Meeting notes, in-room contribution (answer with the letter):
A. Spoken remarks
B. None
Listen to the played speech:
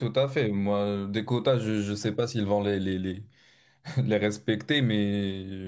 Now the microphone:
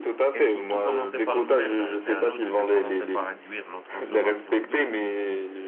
A